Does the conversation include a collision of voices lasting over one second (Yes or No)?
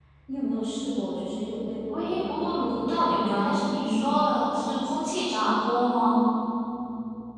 Yes